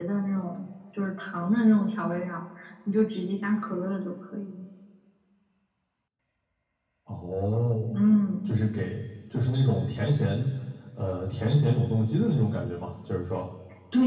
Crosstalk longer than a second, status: none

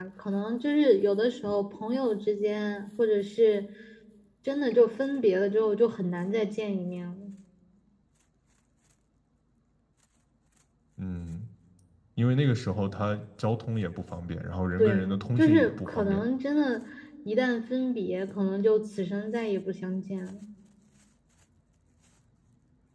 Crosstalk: present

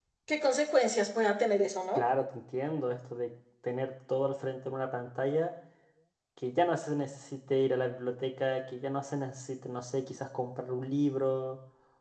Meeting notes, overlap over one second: none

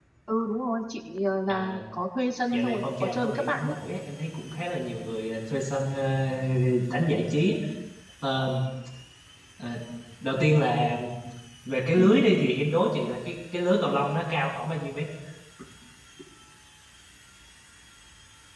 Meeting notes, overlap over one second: present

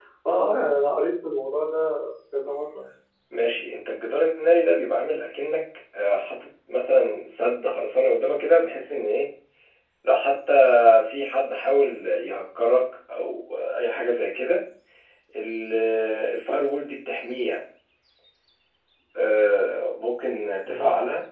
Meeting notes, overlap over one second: none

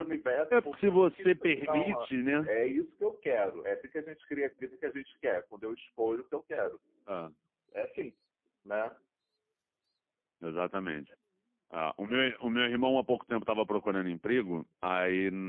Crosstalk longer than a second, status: present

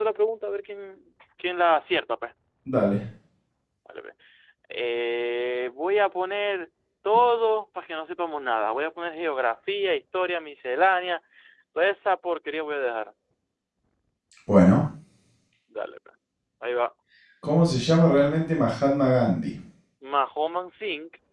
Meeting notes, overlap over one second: none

